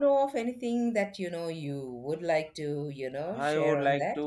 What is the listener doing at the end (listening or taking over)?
taking over